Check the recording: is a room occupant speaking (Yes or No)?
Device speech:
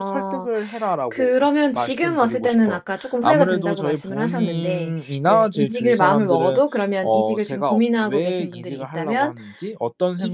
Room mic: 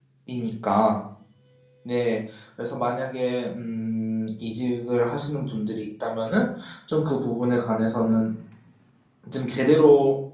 Yes